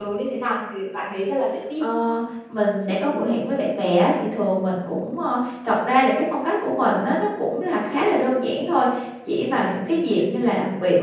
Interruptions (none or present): none